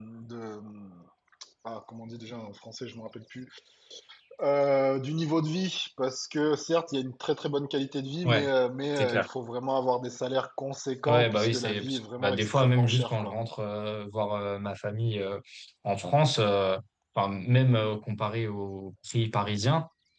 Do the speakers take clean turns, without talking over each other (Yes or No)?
No